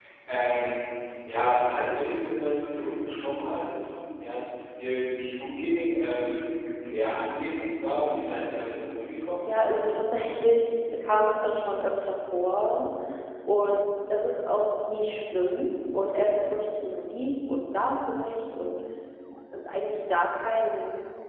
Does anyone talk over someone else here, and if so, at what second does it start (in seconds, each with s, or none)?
none